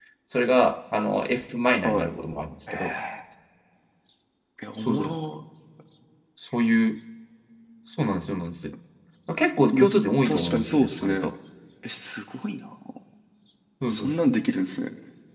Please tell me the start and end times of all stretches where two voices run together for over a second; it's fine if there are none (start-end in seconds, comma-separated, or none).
9.7-11.2